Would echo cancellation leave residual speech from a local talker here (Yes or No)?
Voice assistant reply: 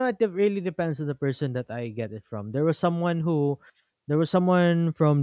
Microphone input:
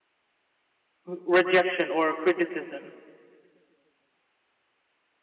Yes